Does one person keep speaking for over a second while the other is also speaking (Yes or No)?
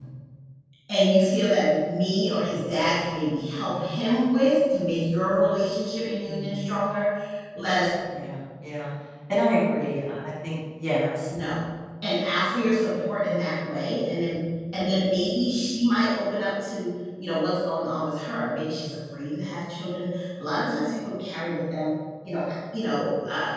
No